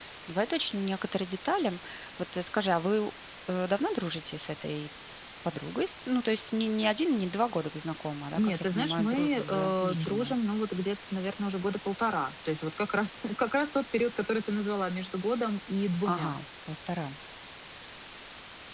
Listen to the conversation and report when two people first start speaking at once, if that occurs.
8.3 s

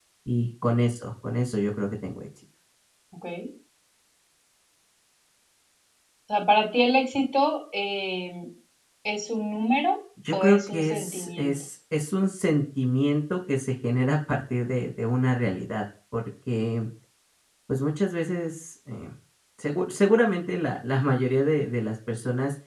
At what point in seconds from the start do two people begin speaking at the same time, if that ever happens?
10.2 s

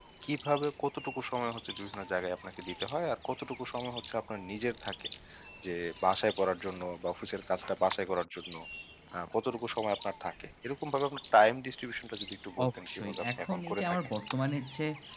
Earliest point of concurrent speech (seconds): 12.6 s

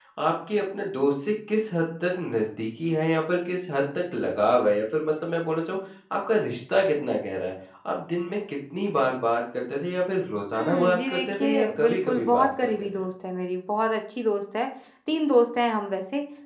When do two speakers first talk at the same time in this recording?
10.5 s

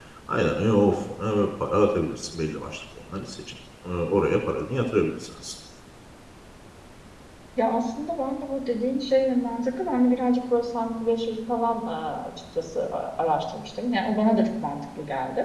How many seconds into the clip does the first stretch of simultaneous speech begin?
none

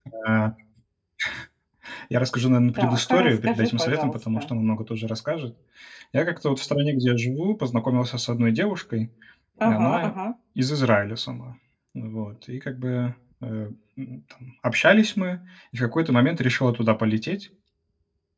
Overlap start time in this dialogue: 2.8 s

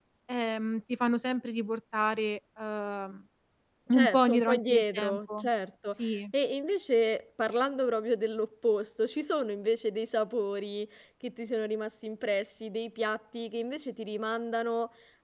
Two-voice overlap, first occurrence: 3.9 s

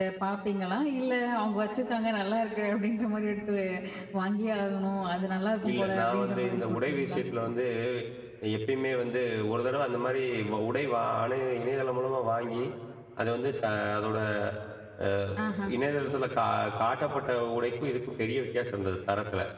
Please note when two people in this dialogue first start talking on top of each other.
5.6 s

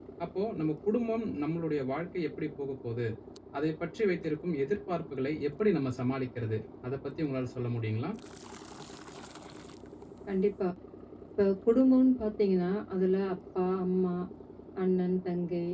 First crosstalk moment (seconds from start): none

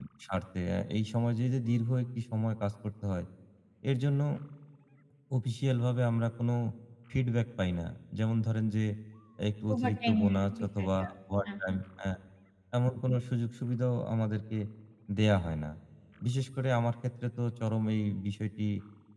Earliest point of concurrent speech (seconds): 9.7 s

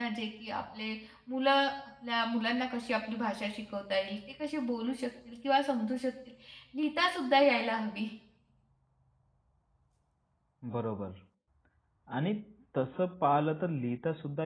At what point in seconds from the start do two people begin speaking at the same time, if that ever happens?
none

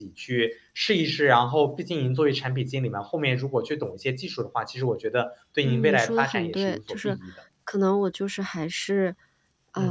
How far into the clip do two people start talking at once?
5.7 s

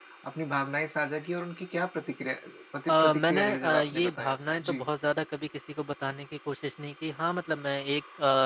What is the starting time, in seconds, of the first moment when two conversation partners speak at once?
2.9 s

